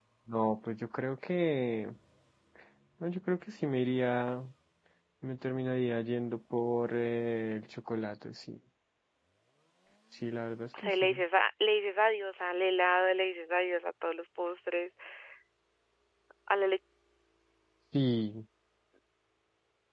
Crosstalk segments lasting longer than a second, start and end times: none

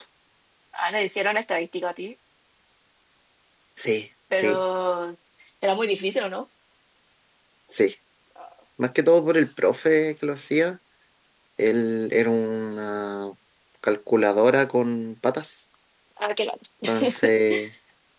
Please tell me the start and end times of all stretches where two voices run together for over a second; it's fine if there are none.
none

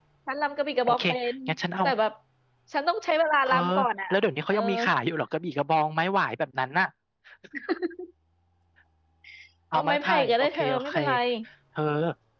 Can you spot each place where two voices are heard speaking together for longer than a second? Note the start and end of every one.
9.7-10.9

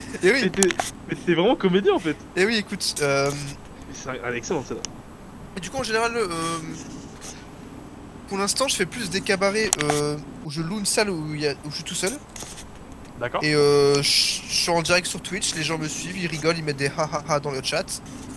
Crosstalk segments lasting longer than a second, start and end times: none

